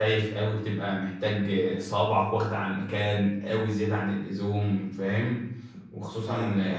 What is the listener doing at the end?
listening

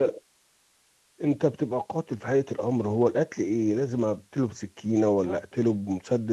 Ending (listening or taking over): listening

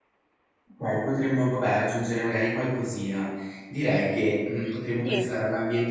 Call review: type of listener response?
listening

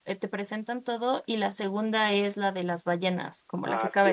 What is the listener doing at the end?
taking over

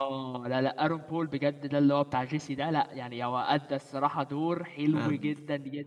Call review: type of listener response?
listening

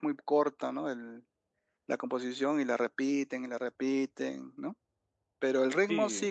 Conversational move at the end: listening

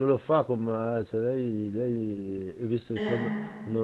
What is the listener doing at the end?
listening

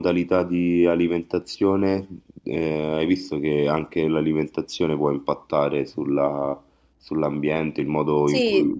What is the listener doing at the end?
listening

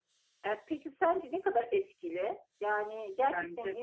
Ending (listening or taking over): listening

